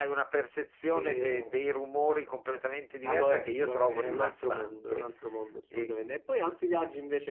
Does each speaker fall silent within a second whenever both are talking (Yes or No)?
No